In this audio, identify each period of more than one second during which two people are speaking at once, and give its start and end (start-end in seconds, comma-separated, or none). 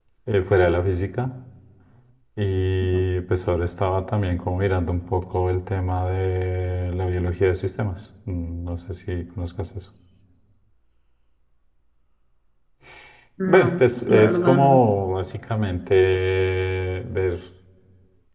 13.5-14.8